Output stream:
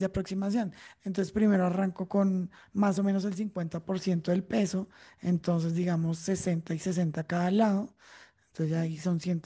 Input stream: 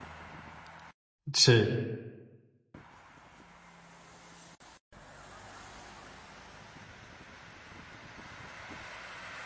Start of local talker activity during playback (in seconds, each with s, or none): 1.3 s